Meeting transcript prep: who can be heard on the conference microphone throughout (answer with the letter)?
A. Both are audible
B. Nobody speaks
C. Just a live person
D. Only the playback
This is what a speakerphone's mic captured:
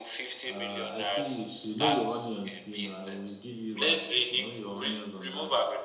A